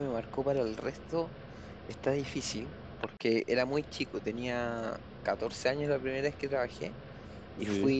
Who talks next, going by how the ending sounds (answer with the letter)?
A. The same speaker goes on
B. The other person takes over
A